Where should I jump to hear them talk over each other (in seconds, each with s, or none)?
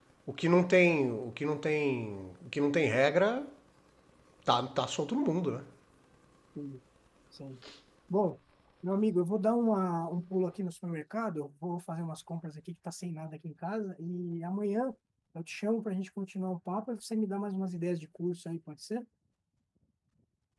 none